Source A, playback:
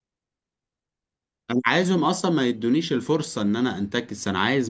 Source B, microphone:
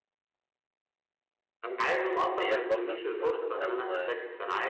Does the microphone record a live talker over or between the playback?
Yes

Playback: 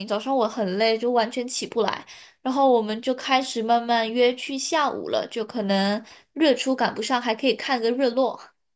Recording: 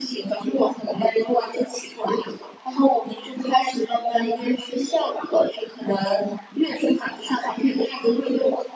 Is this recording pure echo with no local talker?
Yes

